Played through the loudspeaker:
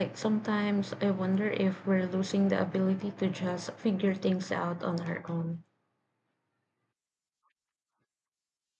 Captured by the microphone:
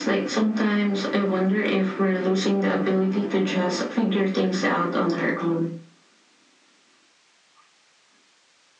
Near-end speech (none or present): none